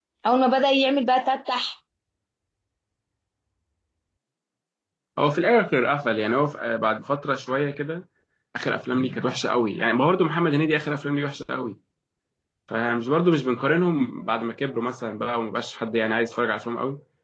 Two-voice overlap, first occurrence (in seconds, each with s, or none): none